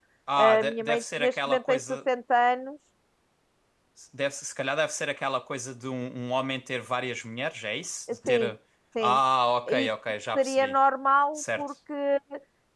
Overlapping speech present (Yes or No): Yes